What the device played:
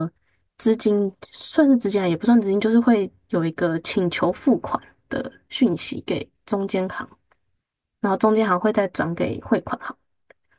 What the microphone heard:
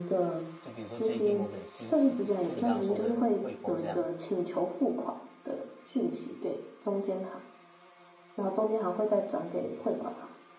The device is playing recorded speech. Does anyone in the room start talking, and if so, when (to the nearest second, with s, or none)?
1 s